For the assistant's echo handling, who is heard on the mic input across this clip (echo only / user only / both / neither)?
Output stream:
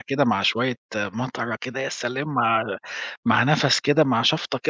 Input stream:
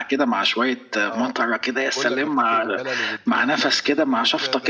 both